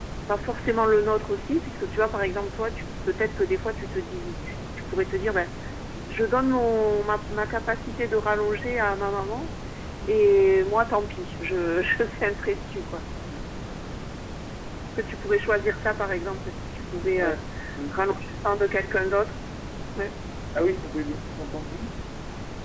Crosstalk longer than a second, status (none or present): none